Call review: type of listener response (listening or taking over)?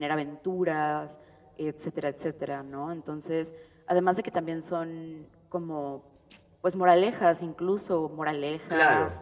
listening